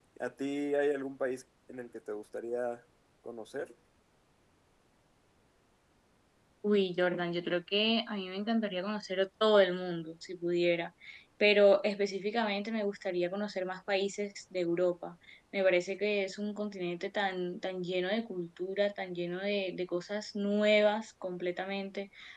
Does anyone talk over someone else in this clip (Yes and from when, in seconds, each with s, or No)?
No